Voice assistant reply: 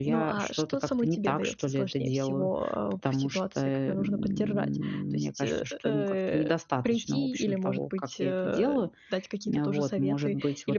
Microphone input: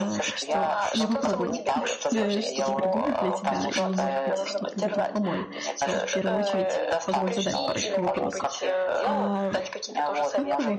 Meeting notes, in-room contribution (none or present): present